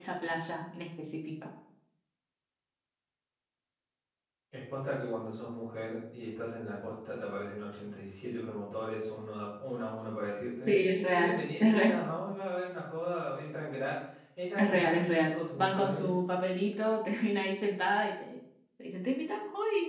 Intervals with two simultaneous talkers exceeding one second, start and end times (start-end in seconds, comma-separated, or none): 10.7-12.1, 14.6-16.2